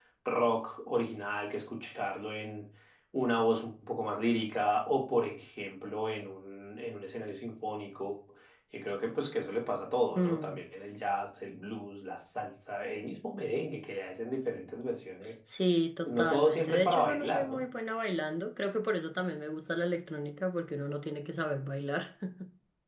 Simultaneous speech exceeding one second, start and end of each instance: 16.1-17.6

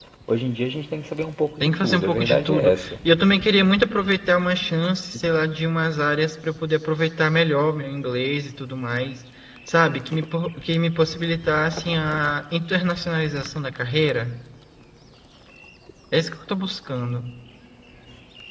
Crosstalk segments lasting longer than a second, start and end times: 1.6-2.9

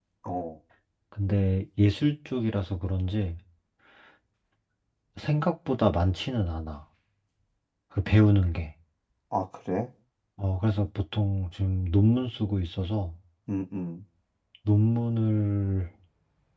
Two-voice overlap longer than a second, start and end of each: none

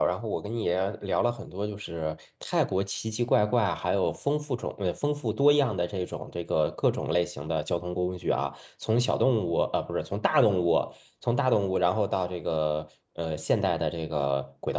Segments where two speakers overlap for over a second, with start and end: none

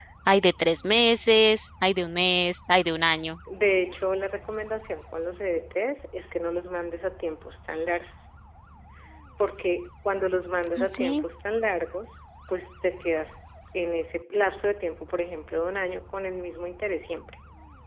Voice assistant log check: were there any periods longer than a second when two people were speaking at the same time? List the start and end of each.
none

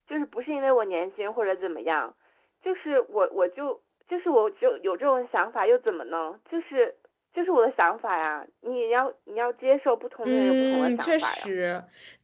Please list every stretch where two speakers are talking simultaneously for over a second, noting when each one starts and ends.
10.2-11.5

